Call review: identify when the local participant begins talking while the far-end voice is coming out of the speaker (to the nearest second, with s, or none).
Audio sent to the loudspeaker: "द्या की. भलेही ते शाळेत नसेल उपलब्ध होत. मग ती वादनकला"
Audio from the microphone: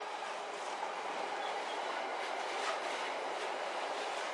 none